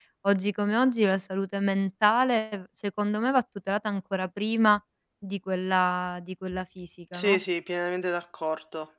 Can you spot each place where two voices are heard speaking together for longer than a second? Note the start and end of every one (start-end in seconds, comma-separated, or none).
none